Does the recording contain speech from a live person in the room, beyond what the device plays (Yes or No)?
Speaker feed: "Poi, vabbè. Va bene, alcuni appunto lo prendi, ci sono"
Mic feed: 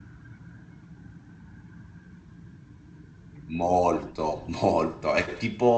Yes